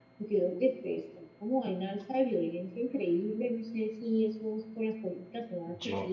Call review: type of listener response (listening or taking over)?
listening